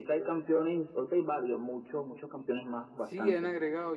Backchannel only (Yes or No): No